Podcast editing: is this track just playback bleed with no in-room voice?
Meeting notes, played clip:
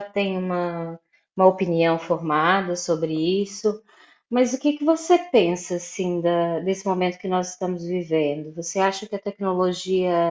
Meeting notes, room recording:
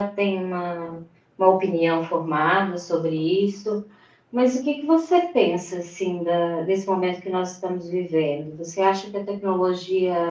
Yes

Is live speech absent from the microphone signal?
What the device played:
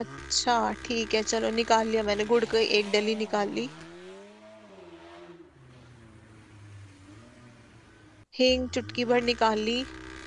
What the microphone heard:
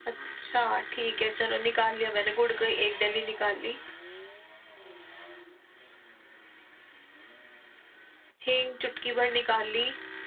Yes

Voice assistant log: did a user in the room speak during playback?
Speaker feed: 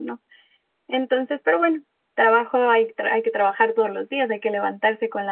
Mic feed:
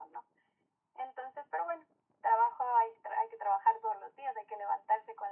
No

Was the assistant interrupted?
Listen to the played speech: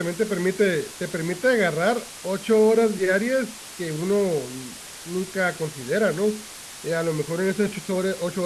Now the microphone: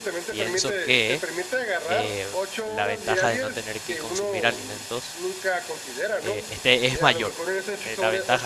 Yes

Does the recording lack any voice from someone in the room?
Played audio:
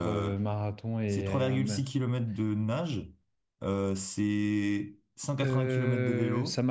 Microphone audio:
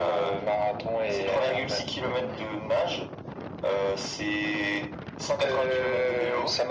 Yes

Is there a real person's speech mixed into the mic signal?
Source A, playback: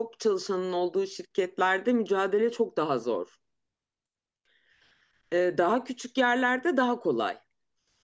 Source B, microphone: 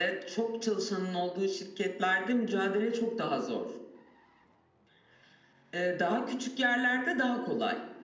No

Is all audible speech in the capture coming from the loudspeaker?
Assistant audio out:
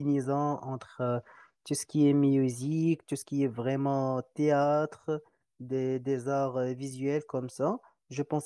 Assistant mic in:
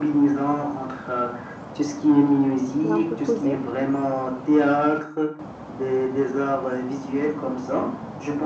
No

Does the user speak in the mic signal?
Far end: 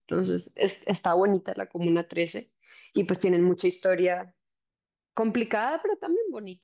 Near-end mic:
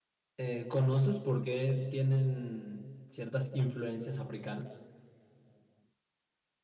Yes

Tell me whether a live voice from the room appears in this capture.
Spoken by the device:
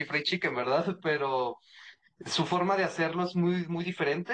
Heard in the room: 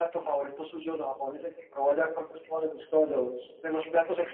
Yes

